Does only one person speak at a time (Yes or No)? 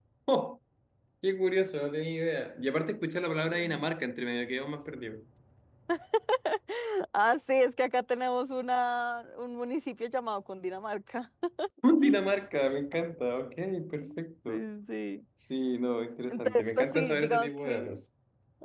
No